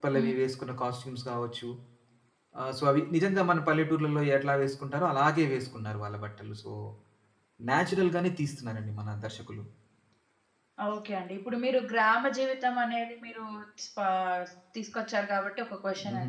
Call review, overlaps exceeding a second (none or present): none